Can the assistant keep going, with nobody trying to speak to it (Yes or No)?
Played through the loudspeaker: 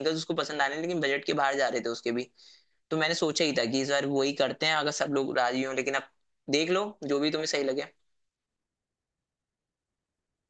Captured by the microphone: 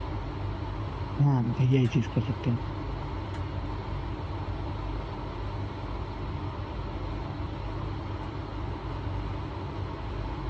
No